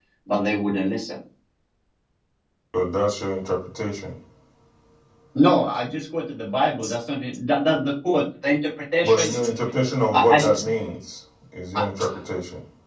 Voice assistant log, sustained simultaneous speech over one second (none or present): none